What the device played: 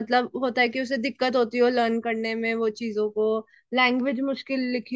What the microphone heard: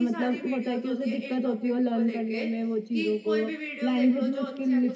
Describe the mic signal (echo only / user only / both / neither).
both